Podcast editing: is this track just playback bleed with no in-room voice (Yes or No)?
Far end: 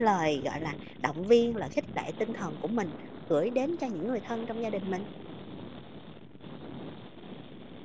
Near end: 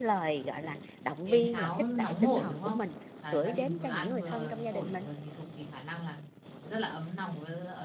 No